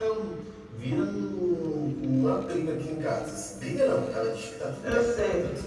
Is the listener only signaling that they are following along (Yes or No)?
Yes